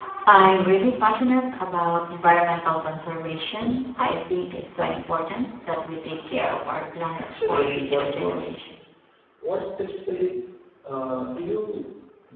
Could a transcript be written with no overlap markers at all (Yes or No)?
No